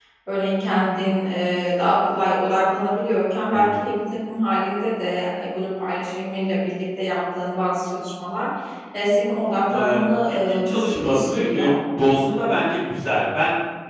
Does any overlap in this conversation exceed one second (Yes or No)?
Yes